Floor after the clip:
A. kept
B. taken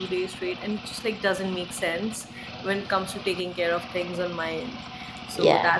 A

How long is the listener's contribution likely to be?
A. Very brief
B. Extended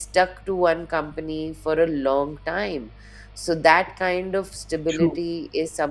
A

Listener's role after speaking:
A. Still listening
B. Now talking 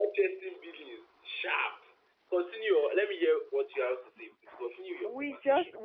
B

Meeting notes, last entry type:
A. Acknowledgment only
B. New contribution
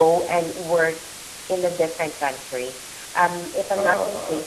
A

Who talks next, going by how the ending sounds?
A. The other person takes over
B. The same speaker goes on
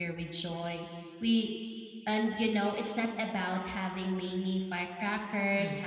B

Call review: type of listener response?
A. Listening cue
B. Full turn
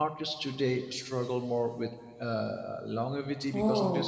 B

